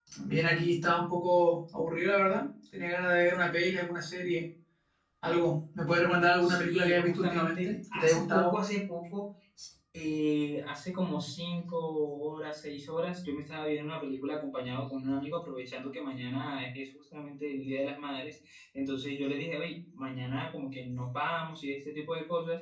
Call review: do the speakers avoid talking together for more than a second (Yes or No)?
No